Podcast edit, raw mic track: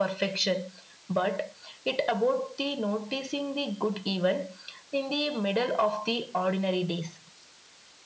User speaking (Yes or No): No